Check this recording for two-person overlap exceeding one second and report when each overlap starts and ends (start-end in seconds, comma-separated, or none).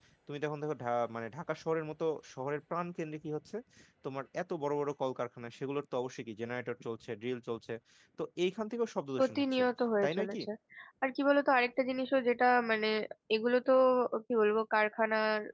none